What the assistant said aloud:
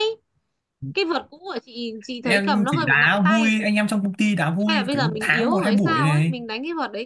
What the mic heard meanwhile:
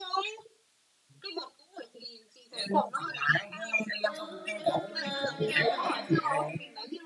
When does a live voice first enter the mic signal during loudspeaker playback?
4.0 s

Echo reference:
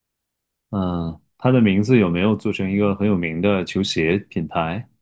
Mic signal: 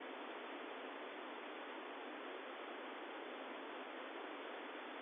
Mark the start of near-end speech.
none

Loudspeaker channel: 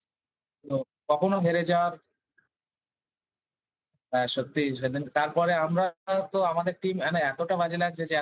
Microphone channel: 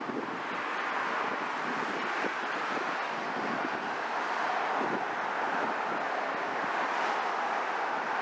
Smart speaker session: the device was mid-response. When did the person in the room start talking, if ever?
none

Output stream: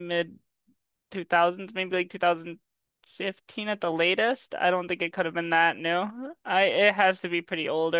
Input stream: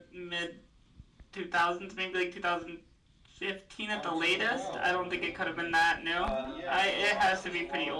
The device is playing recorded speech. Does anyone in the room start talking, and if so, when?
3.9 s

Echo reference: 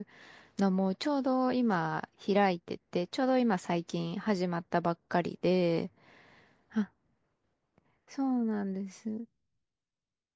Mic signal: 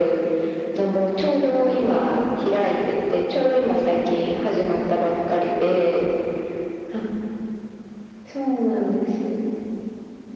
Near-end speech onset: none

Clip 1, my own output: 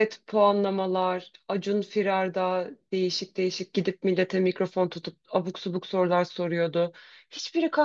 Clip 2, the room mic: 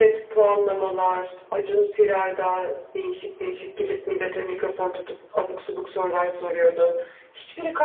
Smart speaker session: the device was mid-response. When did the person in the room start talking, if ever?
none

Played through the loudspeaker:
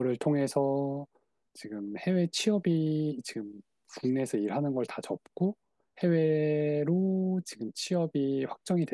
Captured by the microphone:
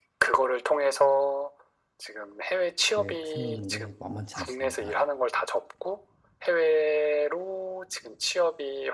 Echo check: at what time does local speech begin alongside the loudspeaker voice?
2.9 s

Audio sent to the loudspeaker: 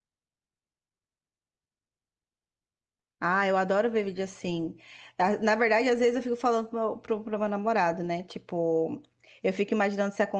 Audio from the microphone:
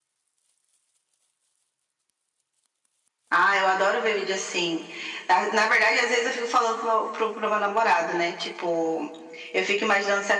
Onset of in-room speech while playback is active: none

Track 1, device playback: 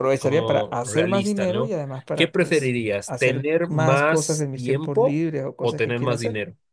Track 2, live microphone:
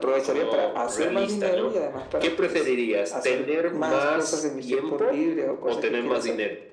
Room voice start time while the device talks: none

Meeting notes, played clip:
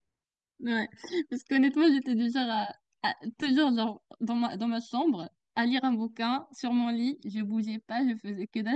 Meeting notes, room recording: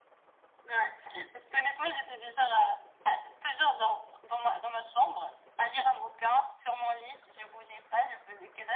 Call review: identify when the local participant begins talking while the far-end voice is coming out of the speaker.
none

